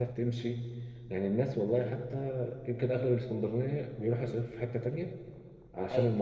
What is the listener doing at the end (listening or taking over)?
listening